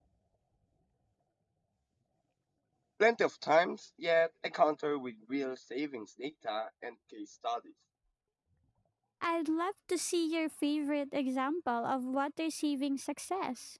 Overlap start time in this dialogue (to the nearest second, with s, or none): none